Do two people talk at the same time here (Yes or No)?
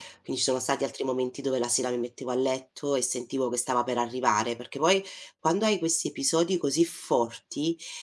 No